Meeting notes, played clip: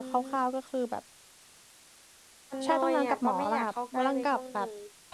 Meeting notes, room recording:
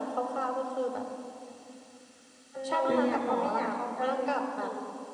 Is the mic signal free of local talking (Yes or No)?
No